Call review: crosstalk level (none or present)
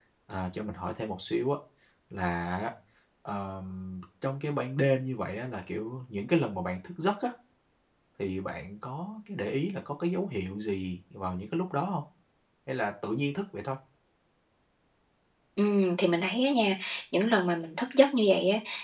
none